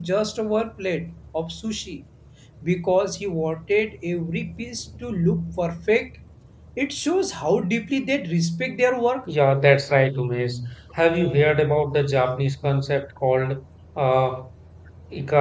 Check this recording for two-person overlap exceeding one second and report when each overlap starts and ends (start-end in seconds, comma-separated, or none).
none